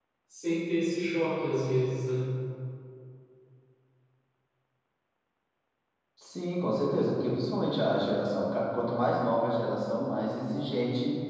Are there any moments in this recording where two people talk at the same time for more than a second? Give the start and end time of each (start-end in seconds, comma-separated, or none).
none